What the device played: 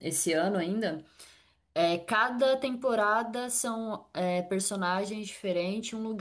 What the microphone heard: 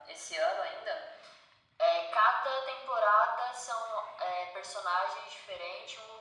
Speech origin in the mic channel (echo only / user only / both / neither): echo only